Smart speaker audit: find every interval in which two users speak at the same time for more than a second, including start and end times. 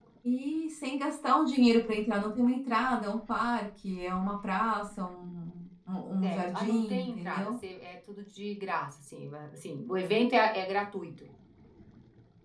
6.2-7.5

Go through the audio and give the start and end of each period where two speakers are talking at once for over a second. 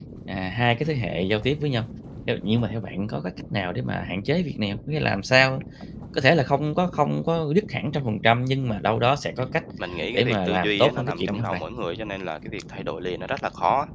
10.1-11.6

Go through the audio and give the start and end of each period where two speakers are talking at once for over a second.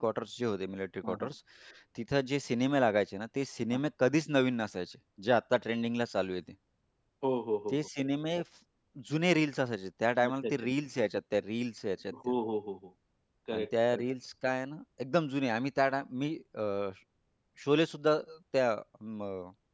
none

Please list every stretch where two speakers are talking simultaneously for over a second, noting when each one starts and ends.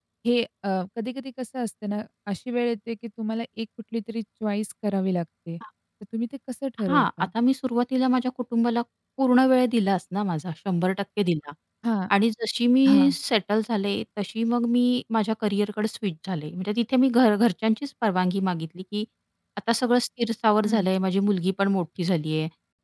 none

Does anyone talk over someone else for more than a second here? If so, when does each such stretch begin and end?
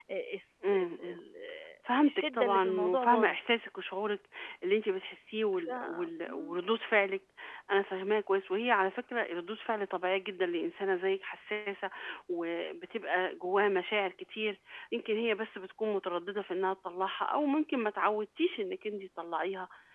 2.0-3.4

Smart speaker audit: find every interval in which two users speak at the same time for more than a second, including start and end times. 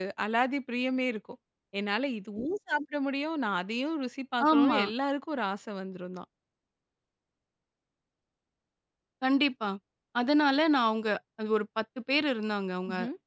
none

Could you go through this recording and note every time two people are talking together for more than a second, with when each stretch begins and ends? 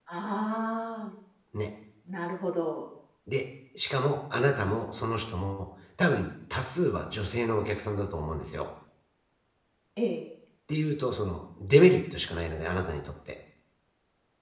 none

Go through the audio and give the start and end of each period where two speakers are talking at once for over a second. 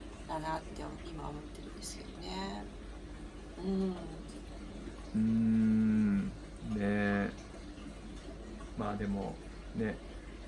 none

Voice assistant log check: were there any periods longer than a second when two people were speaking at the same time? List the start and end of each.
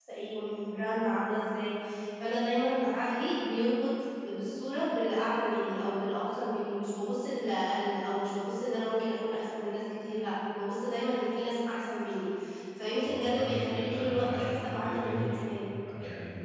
13.0-15.2

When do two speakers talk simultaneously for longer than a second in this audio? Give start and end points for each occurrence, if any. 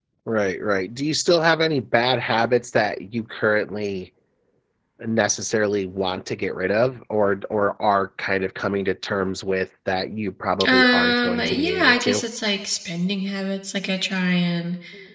10.7-12.2

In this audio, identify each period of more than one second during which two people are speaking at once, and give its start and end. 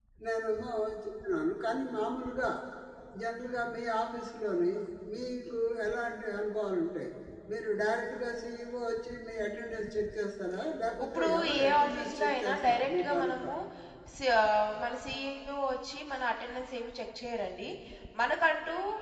11.0-13.5

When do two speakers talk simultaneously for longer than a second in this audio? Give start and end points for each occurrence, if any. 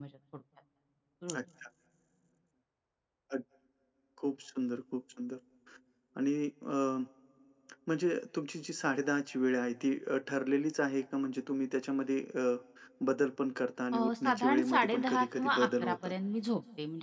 13.9-16.1

